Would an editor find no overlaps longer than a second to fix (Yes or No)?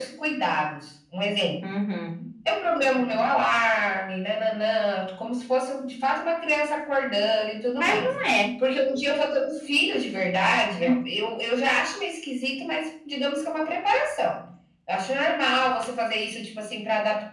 Yes